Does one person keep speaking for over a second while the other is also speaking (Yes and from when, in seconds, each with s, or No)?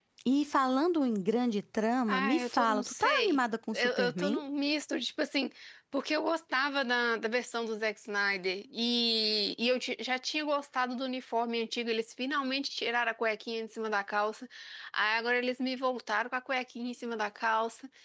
Yes, from 2.1 s